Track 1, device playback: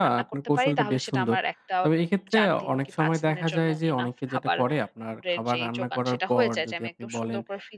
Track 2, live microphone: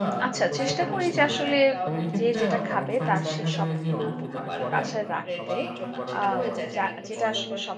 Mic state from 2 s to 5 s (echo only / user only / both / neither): both